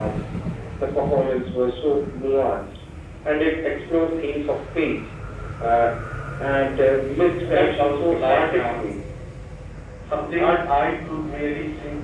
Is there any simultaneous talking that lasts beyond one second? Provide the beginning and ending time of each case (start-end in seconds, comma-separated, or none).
7.4-8.9